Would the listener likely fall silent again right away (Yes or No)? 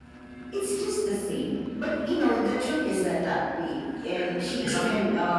Yes